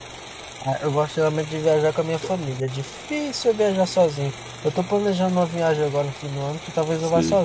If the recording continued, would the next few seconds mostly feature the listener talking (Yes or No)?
No